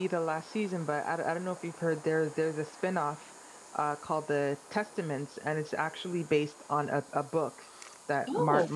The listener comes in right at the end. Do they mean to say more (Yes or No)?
No